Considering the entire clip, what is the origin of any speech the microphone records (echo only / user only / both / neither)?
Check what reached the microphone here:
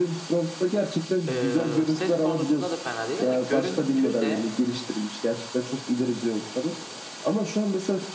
both